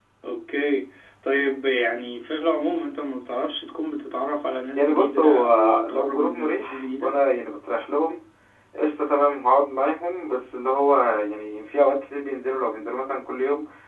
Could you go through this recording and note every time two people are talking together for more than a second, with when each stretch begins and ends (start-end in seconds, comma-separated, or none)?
4.8-7.1